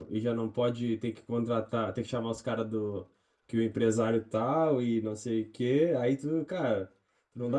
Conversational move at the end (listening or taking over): listening